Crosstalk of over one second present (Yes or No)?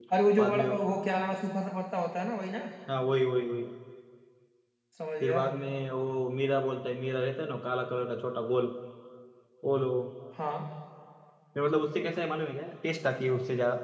No